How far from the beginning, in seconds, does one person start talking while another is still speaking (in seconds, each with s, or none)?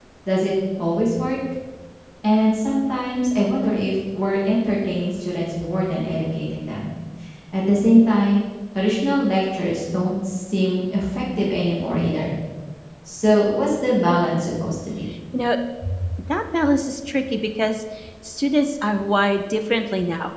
none